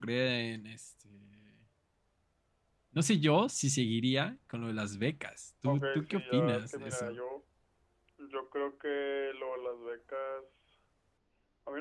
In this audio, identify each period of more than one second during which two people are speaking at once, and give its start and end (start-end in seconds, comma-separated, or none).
5.6-7.2